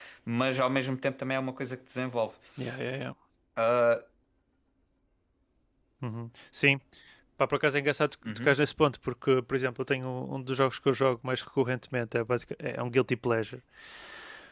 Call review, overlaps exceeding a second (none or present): none